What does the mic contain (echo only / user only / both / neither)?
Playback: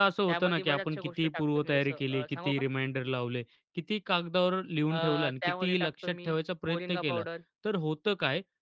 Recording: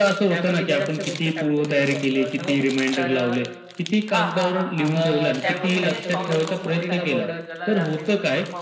both